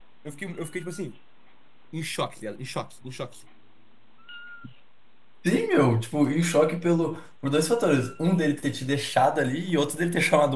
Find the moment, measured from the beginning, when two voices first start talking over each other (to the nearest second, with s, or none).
none